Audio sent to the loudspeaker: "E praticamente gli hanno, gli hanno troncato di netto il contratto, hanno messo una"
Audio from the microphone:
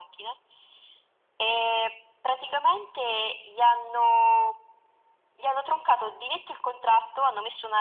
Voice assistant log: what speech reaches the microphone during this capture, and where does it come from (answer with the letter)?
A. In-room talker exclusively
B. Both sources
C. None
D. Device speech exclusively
D